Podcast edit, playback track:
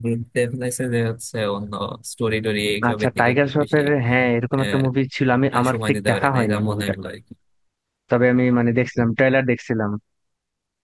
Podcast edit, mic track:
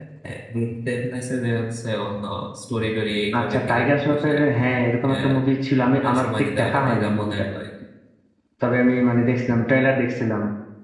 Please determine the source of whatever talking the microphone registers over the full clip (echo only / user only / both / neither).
echo only